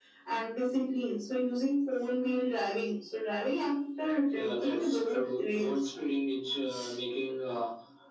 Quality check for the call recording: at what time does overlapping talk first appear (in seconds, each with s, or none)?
4.3 s